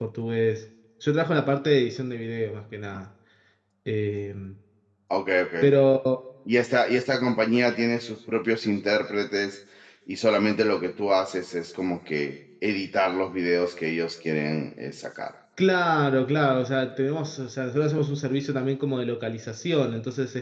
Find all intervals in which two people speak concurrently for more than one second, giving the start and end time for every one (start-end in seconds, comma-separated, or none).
none